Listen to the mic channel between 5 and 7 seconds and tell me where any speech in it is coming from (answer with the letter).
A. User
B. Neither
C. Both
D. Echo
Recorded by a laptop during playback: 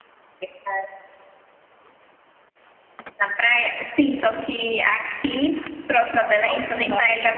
C